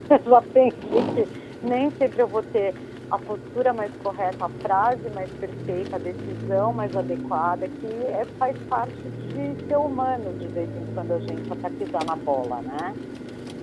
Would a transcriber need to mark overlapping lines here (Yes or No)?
No